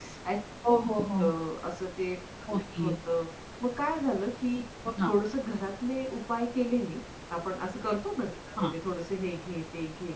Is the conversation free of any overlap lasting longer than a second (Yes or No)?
Yes